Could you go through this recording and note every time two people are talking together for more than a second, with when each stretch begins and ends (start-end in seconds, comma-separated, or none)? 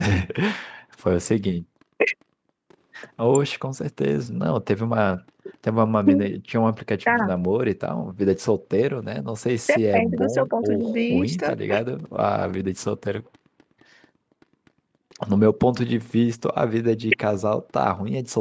9.7-11.6